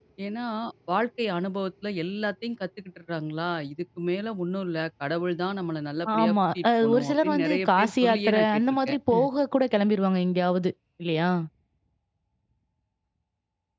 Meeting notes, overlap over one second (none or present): present